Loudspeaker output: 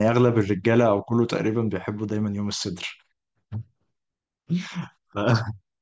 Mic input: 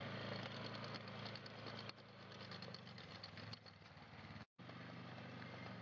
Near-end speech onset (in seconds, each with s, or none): none